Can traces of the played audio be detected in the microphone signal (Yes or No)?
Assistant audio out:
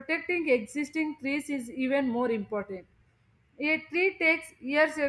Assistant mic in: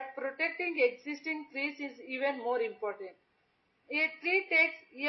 Yes